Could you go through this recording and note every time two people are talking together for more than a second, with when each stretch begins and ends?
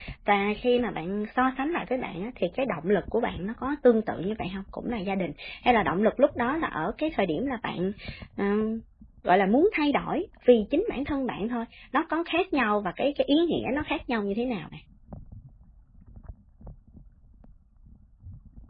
none

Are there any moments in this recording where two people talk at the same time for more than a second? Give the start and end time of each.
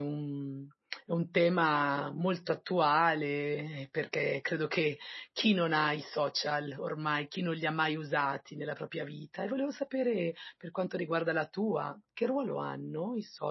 none

